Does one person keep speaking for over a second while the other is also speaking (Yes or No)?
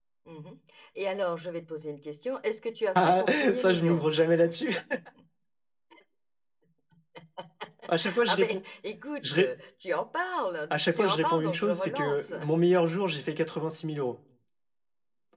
Yes